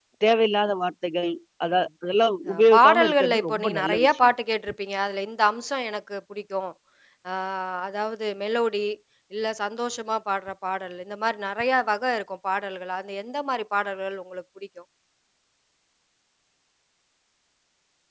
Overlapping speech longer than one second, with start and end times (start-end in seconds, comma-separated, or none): 2.5-4.3